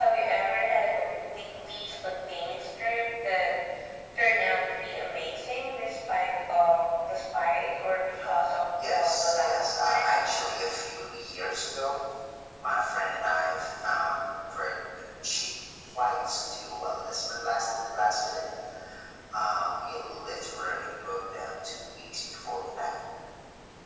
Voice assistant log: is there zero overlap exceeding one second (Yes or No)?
No